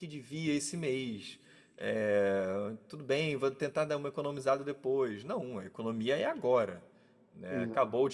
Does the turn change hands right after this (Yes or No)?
No